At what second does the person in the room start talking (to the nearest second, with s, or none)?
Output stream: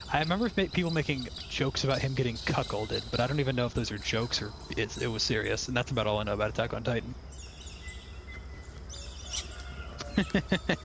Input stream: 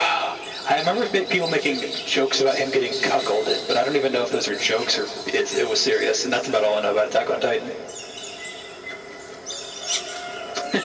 none